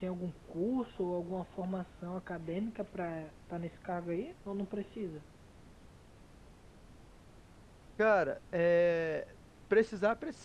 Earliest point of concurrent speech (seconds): none

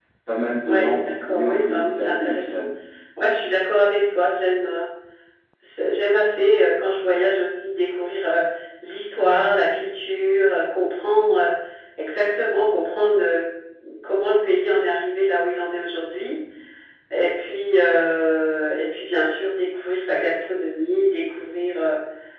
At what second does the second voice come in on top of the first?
0.6 s

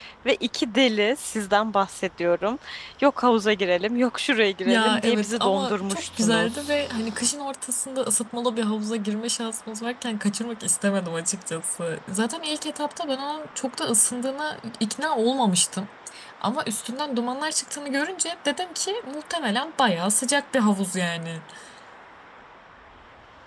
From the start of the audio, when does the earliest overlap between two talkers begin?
4.6 s

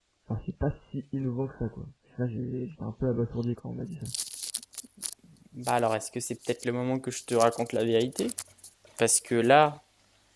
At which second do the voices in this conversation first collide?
none

